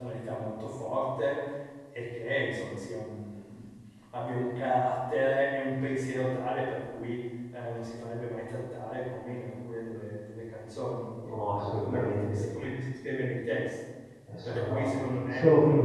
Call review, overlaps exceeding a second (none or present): present